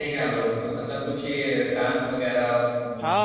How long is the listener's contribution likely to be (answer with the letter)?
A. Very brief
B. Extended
B